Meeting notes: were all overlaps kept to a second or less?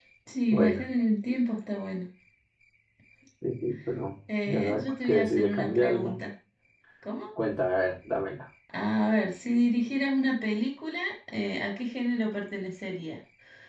No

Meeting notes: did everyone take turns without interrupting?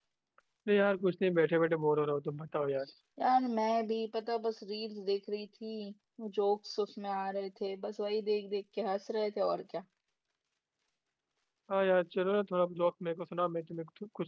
Yes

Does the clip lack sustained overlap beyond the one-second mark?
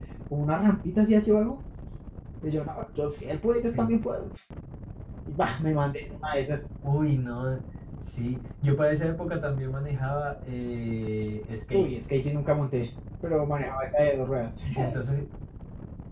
Yes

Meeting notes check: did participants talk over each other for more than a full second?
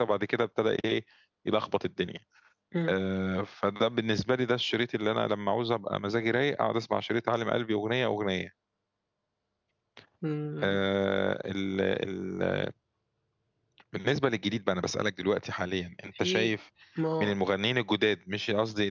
No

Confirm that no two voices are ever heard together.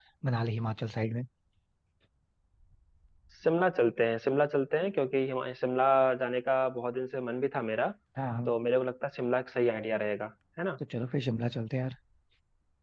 Yes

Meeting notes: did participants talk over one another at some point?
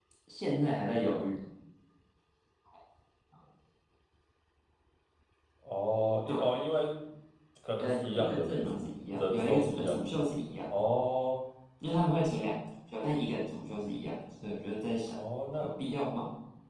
Yes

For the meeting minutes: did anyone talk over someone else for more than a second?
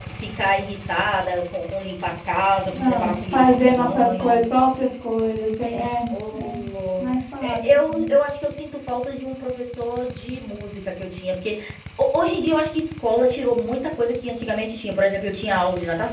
Yes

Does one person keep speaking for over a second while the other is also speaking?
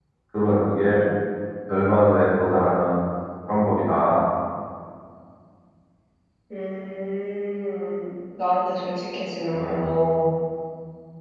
No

